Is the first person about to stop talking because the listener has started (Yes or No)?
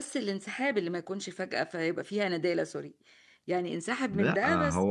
Yes